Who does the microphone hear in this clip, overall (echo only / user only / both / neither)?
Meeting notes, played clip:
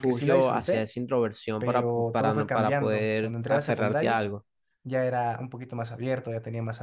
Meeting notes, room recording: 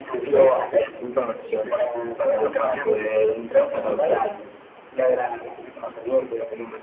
echo only